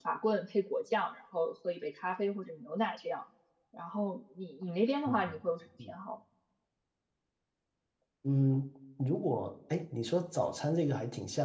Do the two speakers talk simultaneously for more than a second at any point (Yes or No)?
No